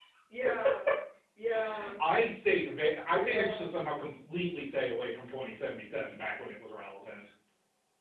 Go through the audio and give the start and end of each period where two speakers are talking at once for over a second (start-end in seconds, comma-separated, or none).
none